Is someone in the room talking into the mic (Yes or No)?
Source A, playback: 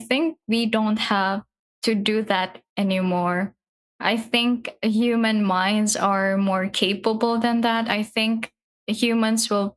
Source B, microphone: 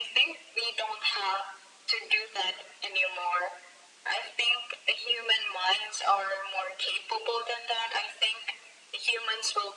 No